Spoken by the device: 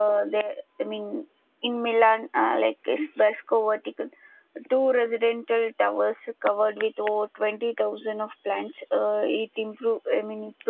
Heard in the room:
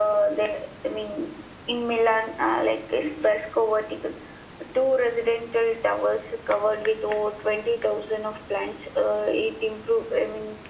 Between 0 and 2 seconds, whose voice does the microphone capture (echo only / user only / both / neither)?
echo only